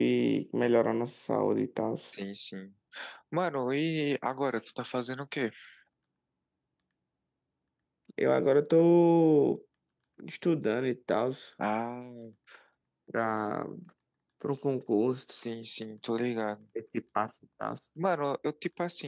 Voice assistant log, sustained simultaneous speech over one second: none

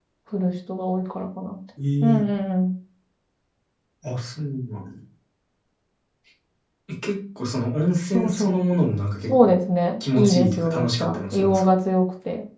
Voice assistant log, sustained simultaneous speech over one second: present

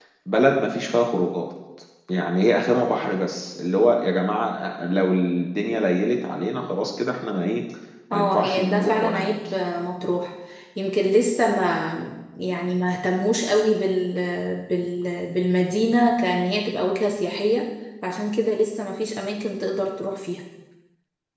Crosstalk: present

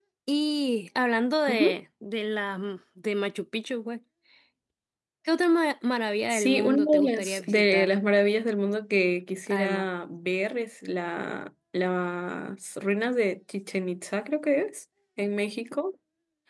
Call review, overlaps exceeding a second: present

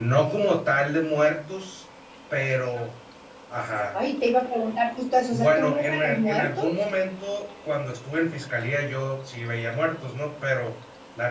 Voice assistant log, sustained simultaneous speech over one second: present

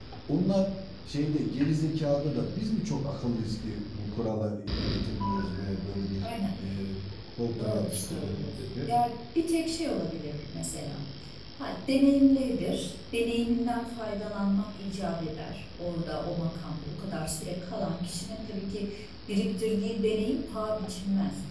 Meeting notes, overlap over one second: present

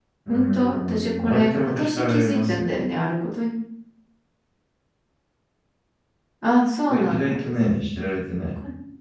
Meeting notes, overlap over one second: present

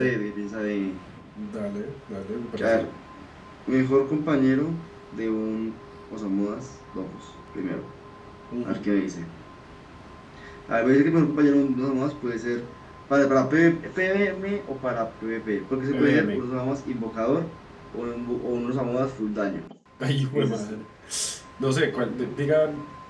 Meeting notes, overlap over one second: none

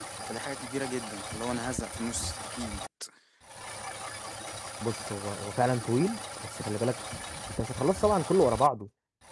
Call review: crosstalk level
none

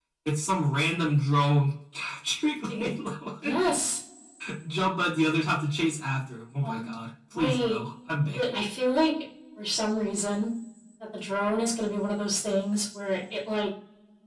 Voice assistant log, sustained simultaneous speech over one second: none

